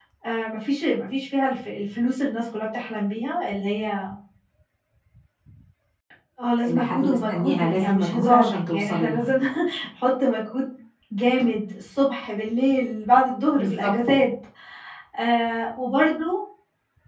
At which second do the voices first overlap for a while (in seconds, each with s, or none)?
6.7 s